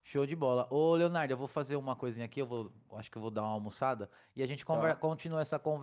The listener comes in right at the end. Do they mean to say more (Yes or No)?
No